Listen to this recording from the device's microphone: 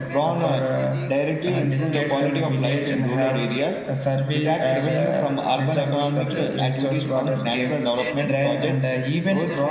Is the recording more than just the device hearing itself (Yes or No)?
Yes